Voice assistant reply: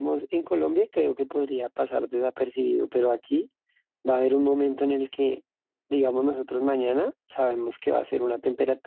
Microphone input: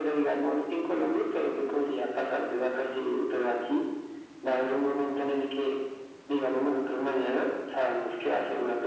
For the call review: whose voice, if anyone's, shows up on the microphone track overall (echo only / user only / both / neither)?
echo only